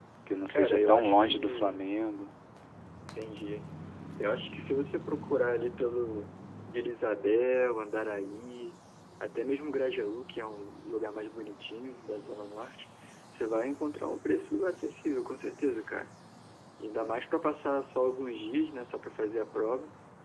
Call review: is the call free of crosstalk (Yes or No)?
No